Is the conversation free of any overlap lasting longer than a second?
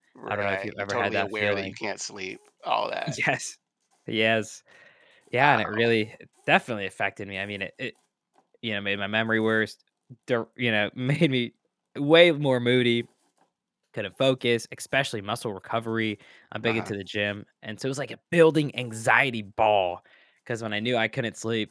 No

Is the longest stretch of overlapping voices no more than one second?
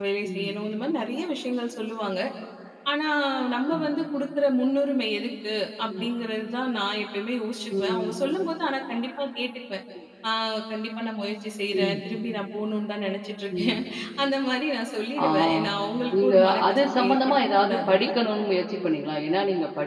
No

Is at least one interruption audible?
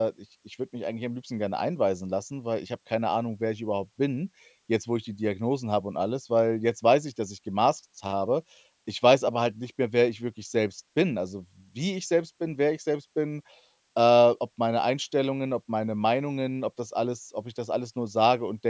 No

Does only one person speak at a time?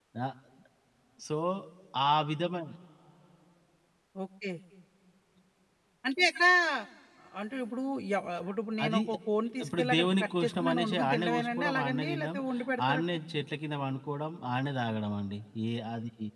No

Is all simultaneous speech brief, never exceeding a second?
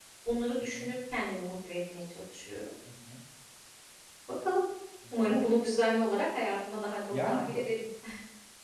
Yes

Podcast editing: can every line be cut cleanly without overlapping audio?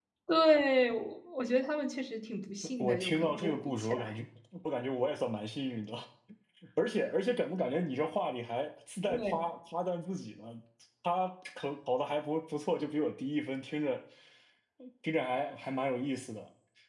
No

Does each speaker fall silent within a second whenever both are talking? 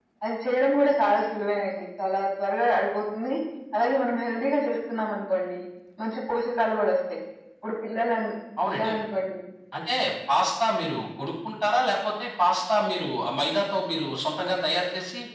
Yes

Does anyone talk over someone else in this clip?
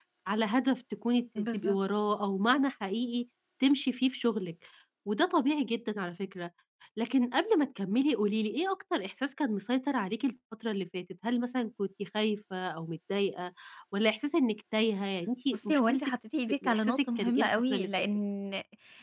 Yes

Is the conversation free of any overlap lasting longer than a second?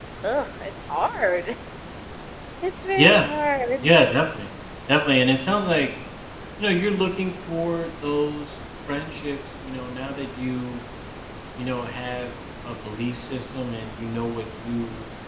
Yes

